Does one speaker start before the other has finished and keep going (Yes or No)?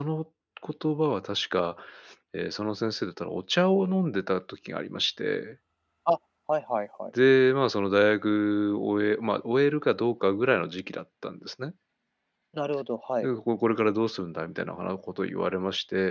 No